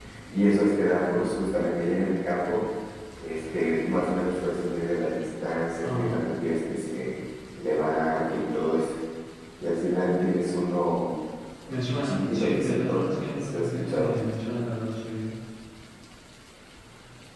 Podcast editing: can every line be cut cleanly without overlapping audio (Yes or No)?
No